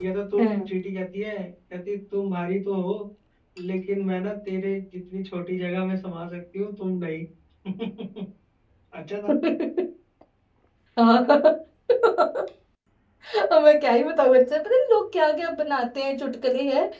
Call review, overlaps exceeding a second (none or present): none